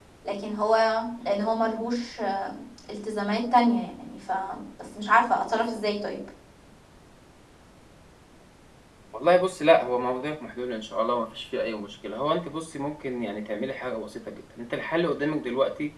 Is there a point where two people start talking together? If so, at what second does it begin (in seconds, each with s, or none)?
none